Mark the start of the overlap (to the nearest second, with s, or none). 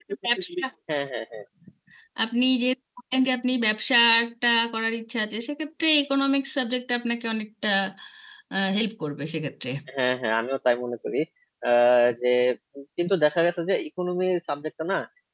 none